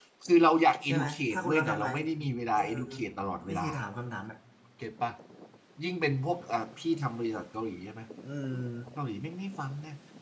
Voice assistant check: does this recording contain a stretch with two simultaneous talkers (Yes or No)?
Yes